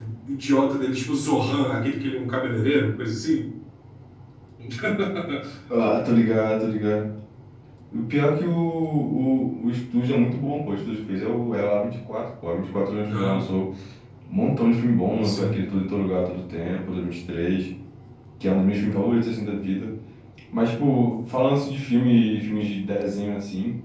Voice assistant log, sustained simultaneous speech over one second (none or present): none